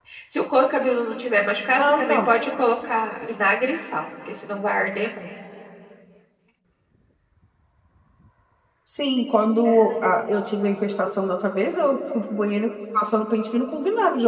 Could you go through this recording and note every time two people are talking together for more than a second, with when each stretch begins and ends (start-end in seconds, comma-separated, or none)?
none